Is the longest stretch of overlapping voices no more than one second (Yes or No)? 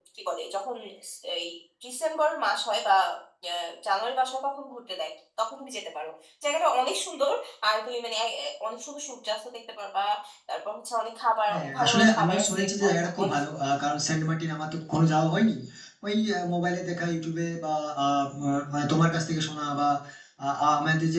No